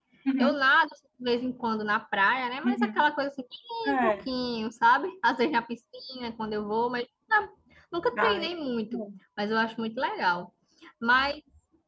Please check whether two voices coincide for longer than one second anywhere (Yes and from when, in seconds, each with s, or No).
No